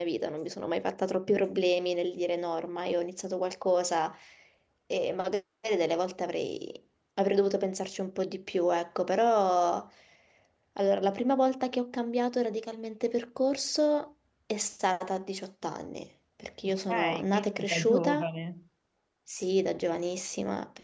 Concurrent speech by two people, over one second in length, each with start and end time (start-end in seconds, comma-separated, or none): 16.6-18.3